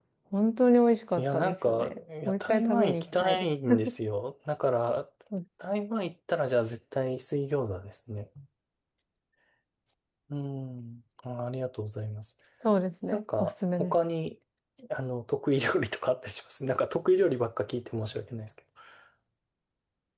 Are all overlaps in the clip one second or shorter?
No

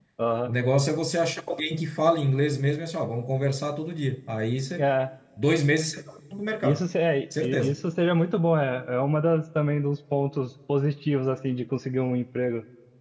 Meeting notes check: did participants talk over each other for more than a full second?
No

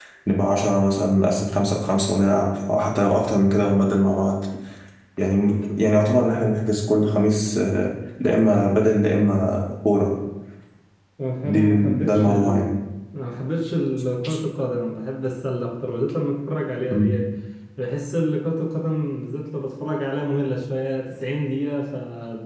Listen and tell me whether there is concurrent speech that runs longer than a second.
Yes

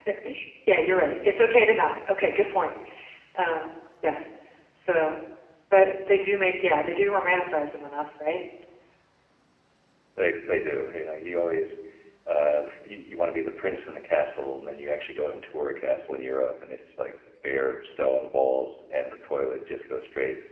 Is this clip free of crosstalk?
Yes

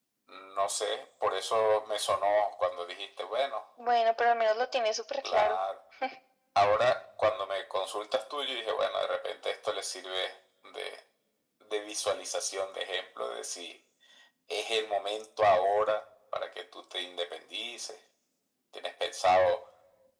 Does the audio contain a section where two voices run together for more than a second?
No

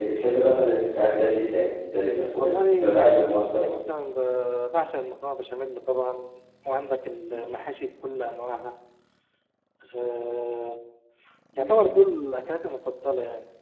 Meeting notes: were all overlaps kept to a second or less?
No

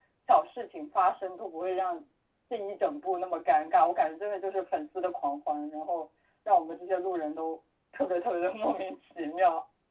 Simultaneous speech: No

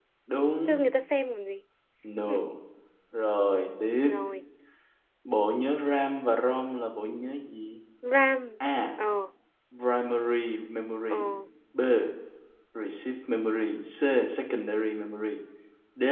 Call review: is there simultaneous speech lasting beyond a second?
No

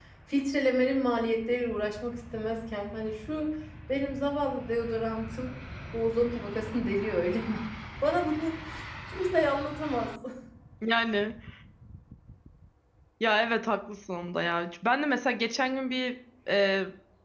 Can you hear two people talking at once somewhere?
No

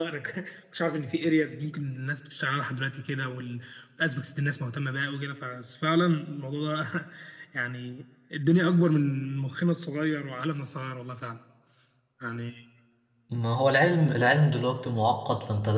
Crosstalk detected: No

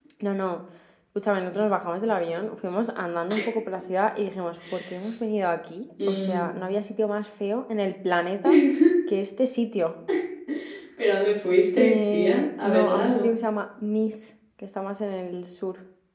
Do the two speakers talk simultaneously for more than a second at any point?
Yes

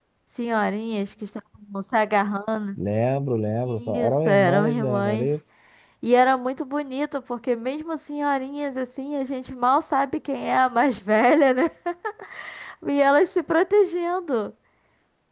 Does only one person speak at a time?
No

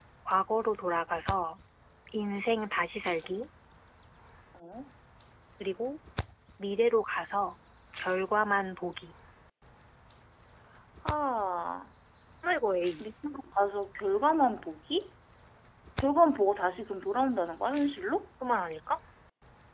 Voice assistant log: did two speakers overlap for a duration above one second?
No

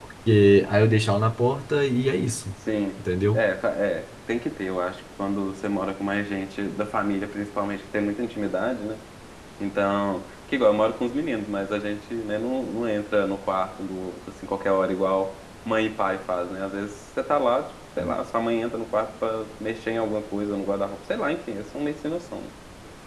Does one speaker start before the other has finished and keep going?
No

